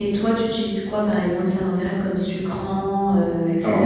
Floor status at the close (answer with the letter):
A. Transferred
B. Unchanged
A